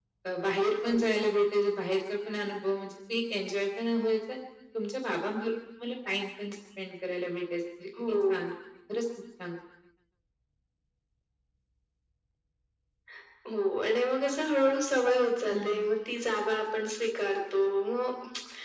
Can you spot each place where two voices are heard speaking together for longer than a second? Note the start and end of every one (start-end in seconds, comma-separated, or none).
none